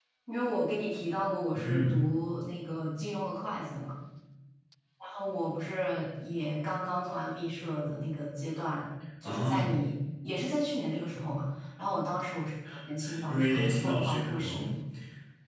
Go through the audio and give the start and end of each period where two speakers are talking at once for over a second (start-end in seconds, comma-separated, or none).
13.2-14.7